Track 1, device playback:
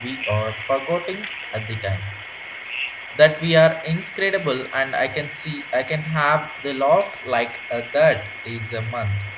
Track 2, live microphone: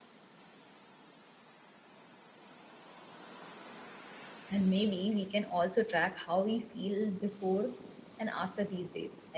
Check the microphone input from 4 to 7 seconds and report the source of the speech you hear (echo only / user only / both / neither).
user only